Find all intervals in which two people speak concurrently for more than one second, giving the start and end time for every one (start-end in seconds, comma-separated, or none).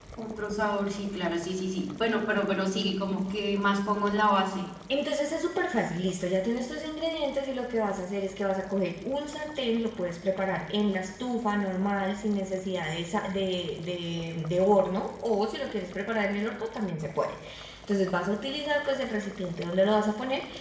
none